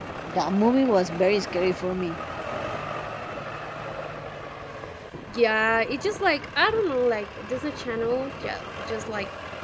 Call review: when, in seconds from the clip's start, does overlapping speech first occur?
none

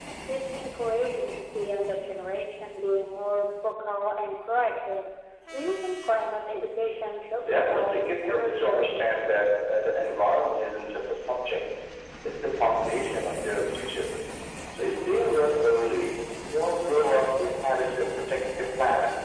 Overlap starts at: 7 s

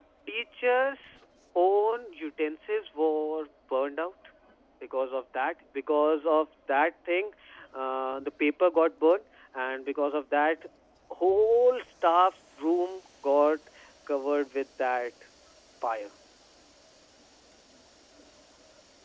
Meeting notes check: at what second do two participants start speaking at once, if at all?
none

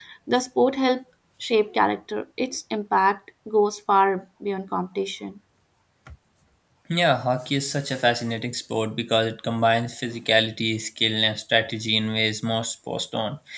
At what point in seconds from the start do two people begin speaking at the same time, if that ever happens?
none

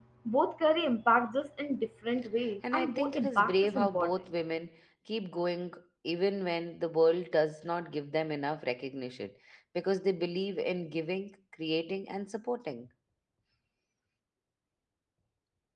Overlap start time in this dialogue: 3 s

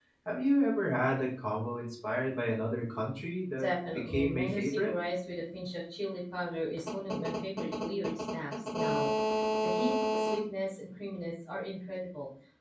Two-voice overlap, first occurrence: 4 s

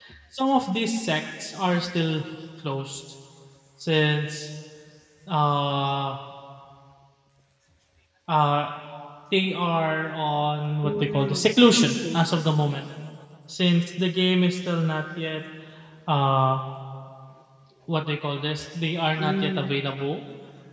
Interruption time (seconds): 11 s

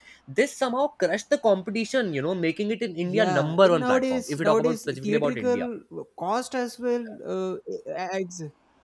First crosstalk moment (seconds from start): 3 s

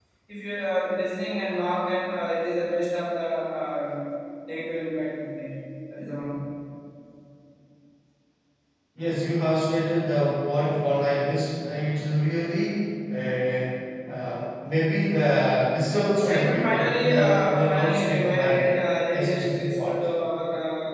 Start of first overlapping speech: 16 s

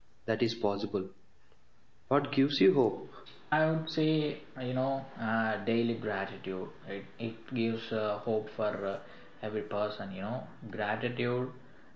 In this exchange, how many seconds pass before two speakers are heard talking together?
none

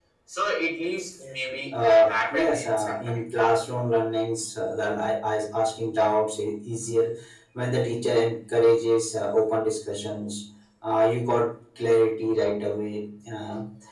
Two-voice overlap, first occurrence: 2 s

